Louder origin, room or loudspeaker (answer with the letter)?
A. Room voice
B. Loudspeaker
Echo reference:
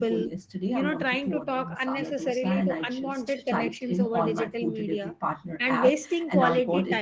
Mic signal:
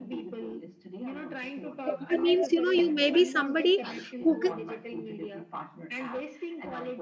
A